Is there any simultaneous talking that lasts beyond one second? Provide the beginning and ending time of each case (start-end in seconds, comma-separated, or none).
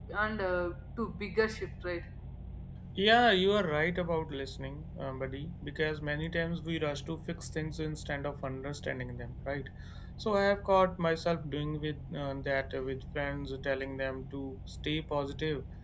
none